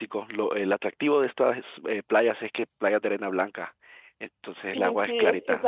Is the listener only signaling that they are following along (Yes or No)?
No